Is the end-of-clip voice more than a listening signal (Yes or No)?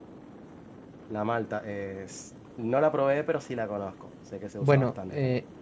Yes